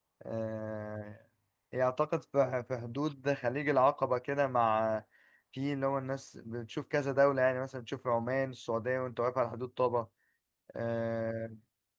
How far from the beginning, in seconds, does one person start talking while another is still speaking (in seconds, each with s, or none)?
none